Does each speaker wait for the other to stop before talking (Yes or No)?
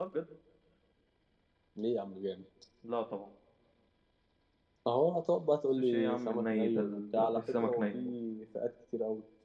No